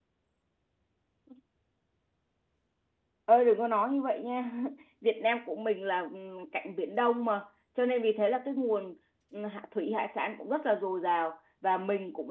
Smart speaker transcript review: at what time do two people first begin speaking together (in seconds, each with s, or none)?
none